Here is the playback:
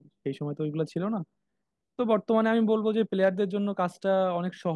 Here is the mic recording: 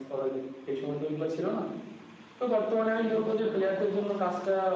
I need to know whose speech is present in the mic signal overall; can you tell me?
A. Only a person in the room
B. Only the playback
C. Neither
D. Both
D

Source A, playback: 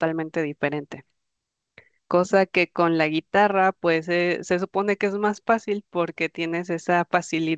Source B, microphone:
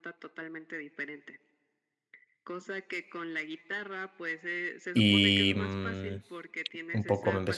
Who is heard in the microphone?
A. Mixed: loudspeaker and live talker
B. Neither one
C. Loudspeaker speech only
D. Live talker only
A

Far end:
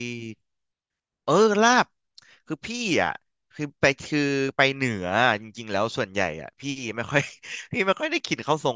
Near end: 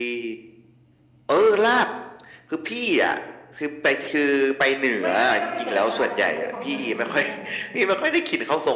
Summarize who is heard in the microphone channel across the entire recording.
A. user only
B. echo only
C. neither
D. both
D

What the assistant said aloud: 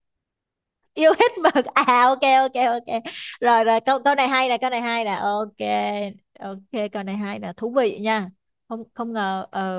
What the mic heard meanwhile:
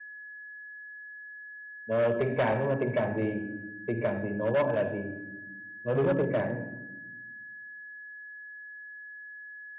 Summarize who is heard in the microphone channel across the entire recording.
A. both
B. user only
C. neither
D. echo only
B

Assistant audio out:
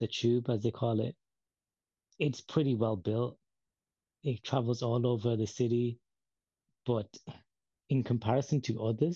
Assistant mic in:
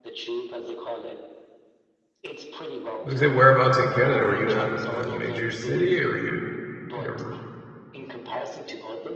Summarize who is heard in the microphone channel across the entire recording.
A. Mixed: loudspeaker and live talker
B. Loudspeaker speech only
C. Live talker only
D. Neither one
A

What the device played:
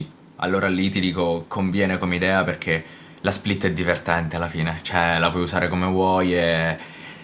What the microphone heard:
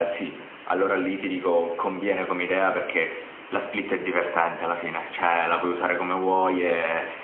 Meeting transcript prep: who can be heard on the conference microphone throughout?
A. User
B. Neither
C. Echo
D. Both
C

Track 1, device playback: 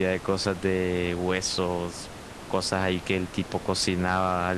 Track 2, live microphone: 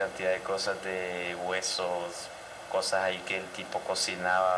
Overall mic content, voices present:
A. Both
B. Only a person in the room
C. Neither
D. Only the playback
D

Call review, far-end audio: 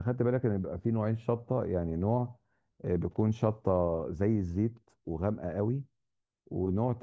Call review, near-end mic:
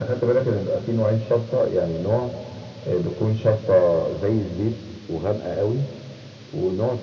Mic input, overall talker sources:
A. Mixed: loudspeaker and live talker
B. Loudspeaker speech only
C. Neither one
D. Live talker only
B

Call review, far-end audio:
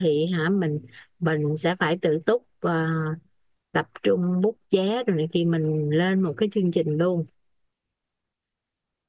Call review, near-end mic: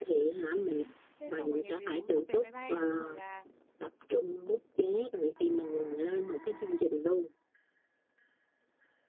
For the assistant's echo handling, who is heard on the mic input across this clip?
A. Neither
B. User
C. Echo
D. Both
D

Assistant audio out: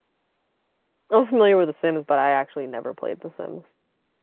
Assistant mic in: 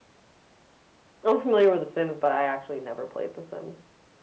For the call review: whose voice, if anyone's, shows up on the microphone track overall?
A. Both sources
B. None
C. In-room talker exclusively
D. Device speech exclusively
D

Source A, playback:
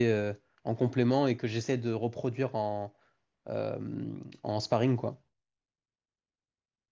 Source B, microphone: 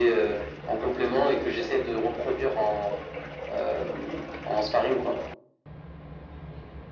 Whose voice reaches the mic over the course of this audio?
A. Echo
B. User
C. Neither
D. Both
A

